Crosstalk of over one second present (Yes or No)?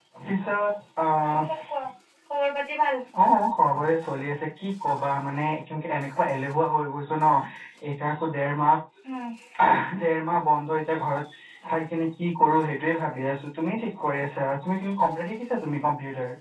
No